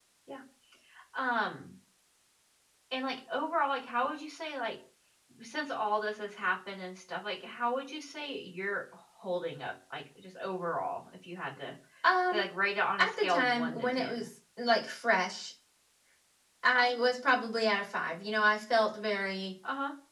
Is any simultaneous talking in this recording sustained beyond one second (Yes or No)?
Yes